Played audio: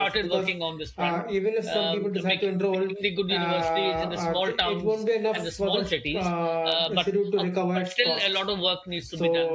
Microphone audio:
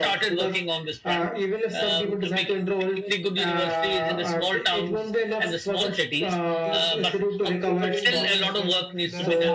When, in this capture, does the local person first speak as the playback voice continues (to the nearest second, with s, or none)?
7 s